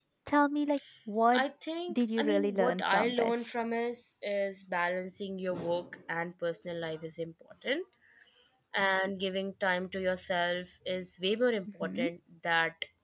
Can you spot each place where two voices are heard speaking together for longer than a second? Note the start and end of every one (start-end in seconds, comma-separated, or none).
1.9-3.5